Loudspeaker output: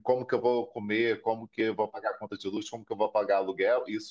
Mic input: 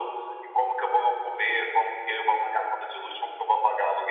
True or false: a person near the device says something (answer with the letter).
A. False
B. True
A